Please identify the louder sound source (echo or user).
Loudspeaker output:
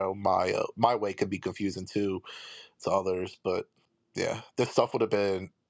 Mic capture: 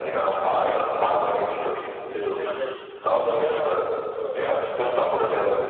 echo